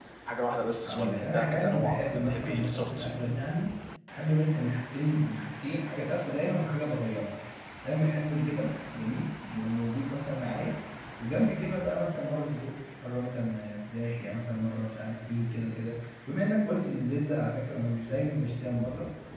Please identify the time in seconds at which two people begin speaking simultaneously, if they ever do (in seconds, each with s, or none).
0.9 s